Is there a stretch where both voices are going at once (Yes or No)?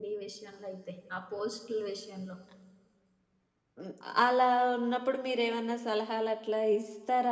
No